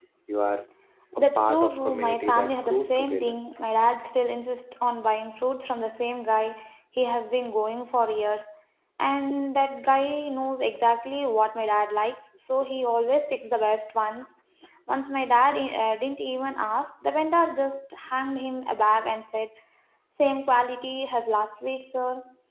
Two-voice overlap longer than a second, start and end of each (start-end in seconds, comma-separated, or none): 1.2-3.4